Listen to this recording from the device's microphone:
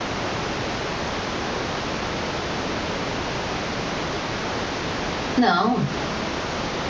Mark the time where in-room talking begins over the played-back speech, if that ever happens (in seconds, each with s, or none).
5.4 s